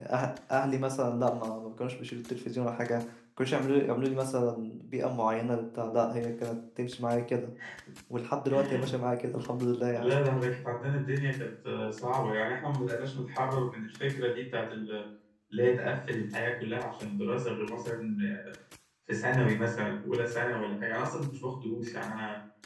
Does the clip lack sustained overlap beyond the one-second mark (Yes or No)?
Yes